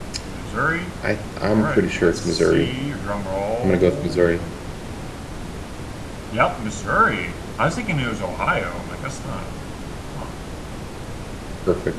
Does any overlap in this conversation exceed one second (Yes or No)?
Yes